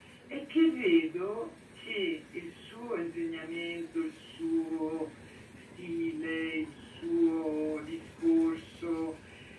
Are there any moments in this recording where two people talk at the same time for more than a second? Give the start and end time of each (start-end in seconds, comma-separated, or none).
none